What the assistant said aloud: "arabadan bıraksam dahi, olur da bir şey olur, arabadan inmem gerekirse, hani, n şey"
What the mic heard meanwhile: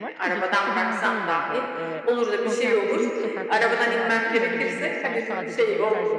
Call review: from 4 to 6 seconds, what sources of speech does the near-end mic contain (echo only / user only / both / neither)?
both